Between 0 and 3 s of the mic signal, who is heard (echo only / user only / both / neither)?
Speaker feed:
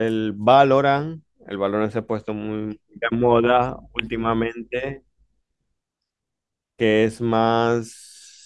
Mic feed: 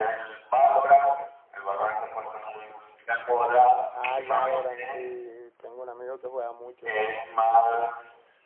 echo only